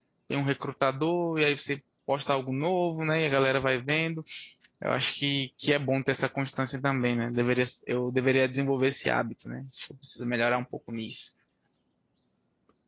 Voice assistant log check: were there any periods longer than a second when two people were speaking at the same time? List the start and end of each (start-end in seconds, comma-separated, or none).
none